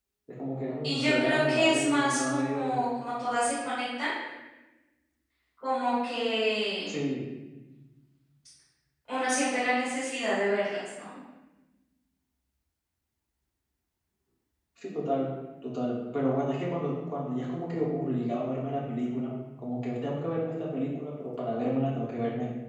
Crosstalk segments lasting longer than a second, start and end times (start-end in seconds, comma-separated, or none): 0.8-2.8